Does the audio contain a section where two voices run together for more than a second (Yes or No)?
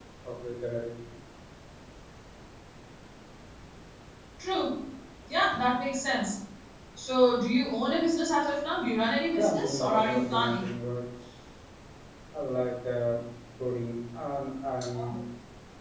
Yes